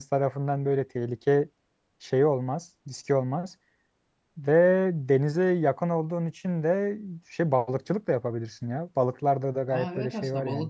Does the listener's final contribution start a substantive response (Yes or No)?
Yes